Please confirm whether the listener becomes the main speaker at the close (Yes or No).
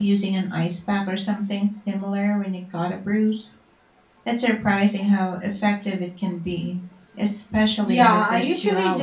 Yes